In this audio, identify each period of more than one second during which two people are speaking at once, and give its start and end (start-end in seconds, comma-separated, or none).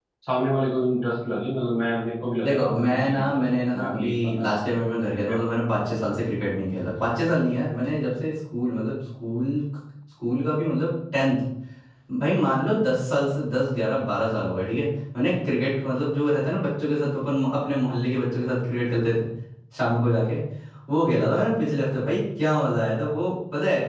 2.4-4.8